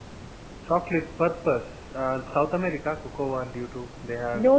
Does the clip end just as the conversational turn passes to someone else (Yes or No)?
Yes